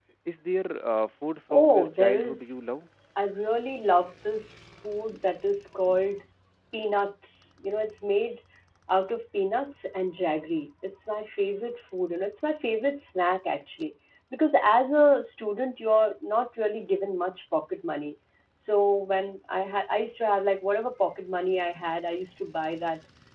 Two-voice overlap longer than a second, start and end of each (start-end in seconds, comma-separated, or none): 1.5-2.7